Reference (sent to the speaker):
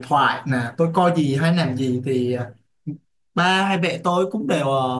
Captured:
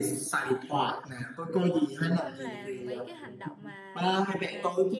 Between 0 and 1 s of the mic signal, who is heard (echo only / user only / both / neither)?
echo only